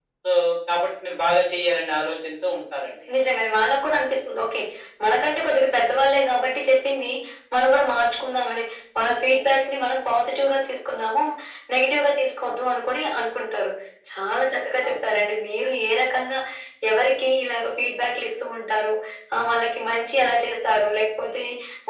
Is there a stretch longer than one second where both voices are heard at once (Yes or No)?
No